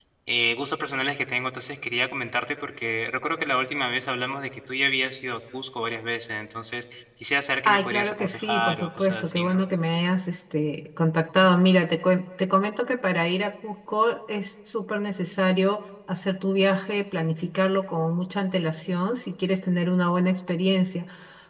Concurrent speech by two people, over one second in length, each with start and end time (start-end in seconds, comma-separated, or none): 7.7-9.6